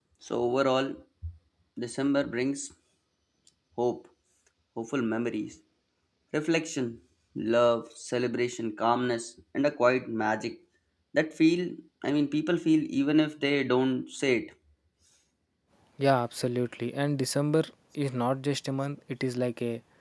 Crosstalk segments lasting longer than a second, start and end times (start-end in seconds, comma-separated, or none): none